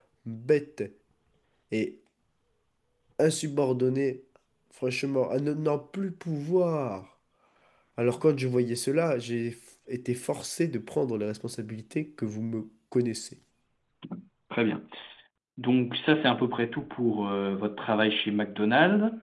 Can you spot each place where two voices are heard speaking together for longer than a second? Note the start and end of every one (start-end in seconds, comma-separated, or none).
none